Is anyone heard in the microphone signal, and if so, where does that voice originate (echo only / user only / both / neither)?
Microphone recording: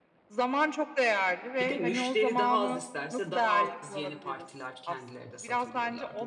both